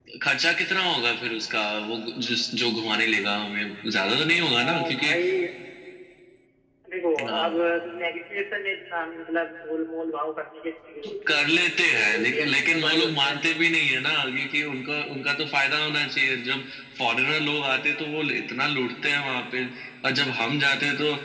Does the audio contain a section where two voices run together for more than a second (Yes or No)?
Yes